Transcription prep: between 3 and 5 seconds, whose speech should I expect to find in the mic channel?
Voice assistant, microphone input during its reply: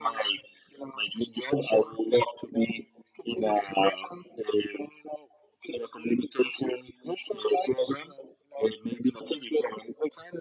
echo only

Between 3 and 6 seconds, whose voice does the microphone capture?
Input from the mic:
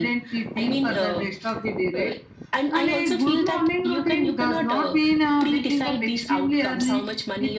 echo only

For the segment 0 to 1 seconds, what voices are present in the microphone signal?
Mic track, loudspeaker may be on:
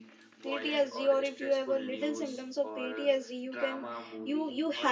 both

